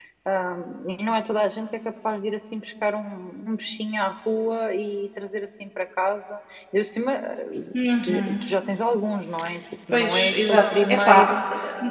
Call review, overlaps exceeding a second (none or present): present